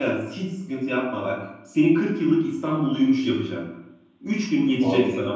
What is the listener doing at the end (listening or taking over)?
listening